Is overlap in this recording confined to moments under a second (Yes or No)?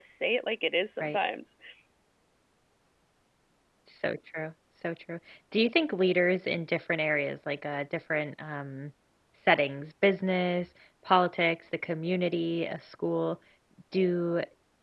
Yes